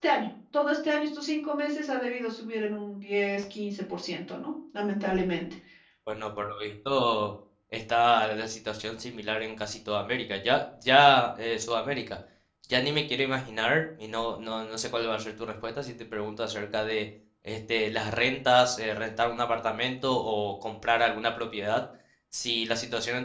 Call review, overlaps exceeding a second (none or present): none